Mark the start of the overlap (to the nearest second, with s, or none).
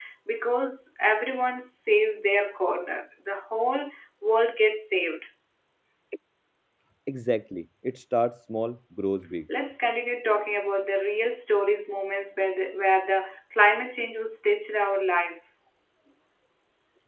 none